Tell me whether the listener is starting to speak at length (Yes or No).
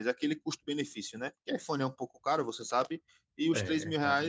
No